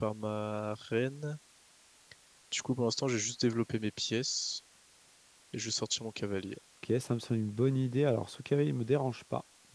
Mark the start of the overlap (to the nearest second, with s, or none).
none